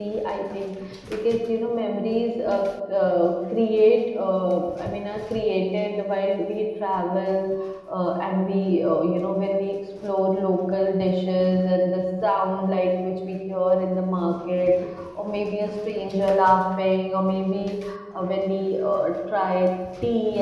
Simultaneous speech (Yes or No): No